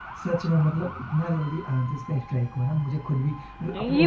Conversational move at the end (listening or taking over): taking over